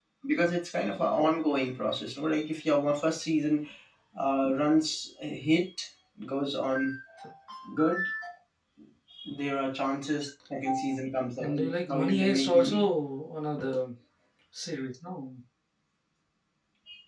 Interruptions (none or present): present